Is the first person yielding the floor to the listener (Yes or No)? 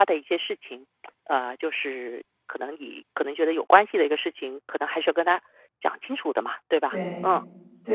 Yes